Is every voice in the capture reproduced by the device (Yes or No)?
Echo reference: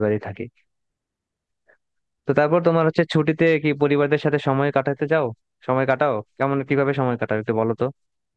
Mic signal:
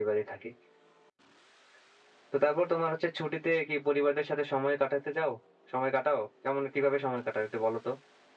Yes